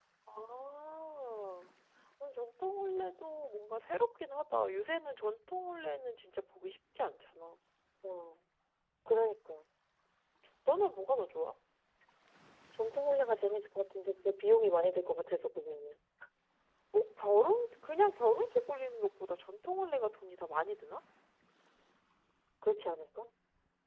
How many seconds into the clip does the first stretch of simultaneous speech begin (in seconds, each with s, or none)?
none